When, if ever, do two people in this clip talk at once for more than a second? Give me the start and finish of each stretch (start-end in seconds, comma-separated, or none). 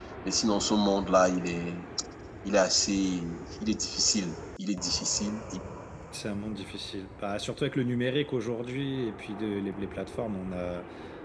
none